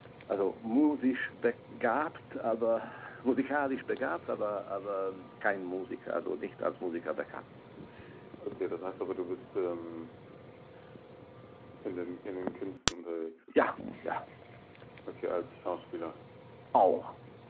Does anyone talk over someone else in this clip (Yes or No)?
No